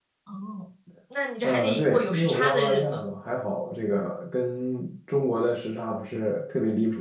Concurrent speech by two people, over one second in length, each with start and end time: 1.4-3.0

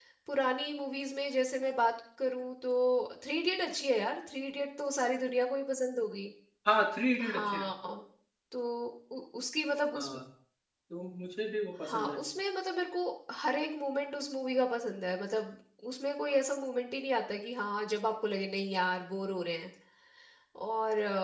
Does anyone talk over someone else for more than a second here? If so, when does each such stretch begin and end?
none

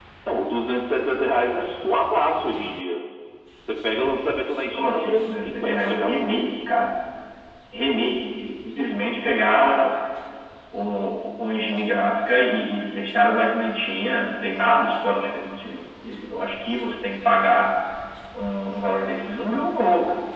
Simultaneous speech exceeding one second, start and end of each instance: 4.7-6.3

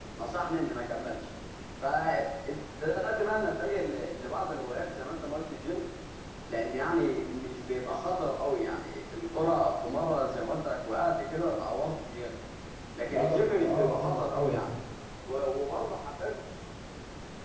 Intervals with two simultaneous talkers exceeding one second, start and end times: 13.1-14.7

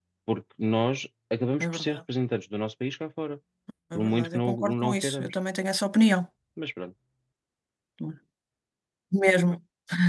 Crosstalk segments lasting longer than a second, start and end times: 4.0-5.3

